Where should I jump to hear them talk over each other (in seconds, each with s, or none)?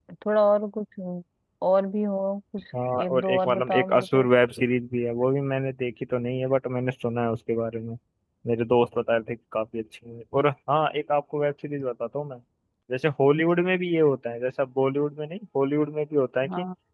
3.0 s